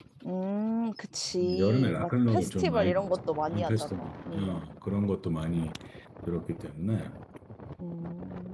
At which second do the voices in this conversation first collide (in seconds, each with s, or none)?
1.4 s